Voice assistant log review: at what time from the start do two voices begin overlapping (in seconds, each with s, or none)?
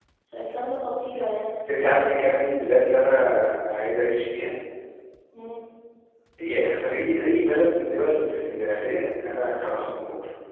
none